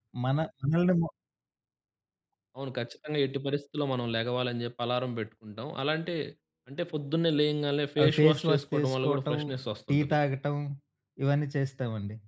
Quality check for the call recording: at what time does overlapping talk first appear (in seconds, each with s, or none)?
8.0 s